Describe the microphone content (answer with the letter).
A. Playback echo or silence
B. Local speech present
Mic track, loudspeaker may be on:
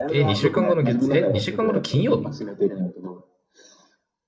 B